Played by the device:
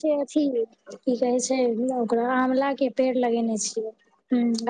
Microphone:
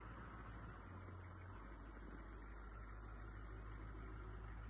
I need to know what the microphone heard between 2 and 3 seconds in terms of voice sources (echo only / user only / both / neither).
neither